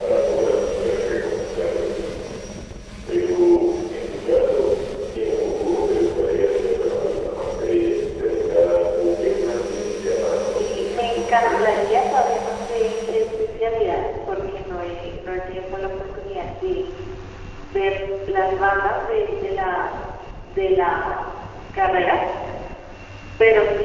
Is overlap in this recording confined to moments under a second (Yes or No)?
No